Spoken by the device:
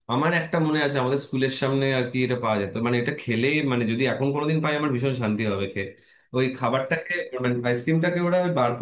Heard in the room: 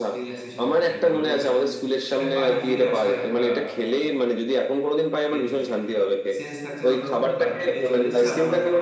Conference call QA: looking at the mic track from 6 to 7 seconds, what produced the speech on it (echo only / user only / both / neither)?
both